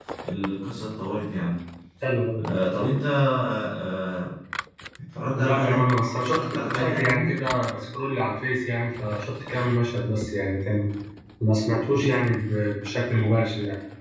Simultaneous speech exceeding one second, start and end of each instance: 5.3-7.3

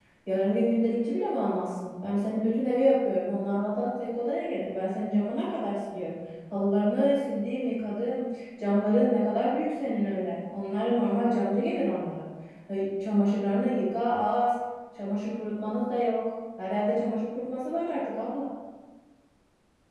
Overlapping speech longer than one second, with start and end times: none

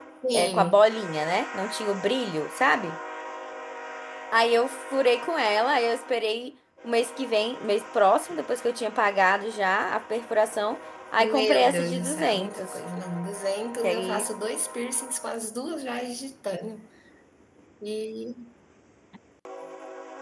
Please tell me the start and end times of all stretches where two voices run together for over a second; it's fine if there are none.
11.2-12.8

